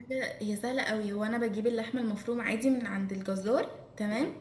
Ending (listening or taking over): listening